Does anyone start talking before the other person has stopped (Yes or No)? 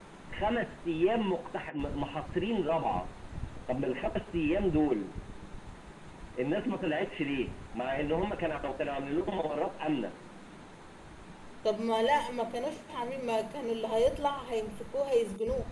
No